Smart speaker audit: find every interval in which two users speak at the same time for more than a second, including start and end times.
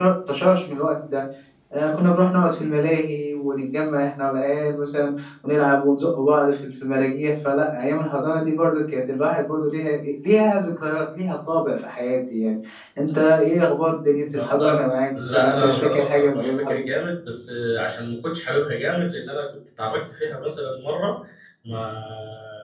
15.3-16.9

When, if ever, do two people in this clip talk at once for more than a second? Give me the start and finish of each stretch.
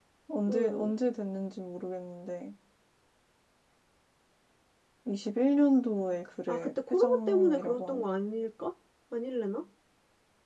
6.5-8.0

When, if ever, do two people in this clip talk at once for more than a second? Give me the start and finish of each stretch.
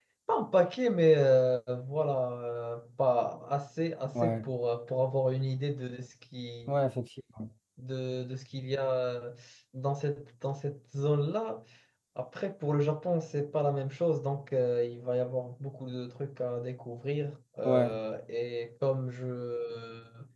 none

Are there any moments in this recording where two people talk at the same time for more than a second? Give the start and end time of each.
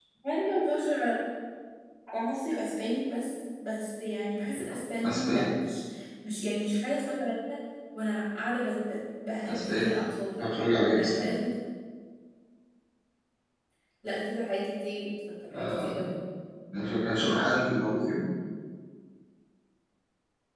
none

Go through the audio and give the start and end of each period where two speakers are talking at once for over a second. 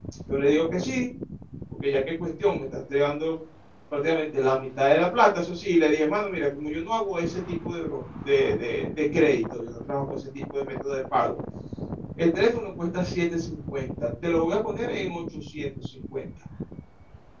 none

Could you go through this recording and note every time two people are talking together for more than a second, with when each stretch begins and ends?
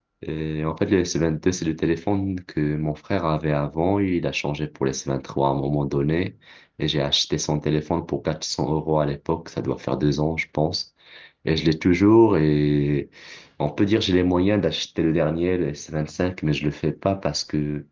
none

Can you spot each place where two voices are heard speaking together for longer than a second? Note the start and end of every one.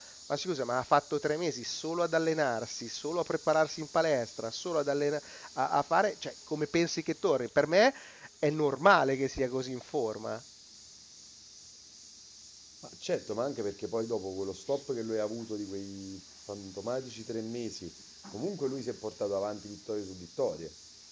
none

